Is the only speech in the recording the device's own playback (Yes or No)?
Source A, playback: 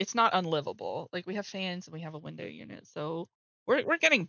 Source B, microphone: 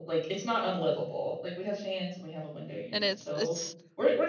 No